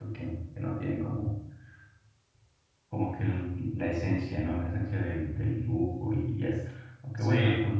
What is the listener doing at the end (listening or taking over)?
listening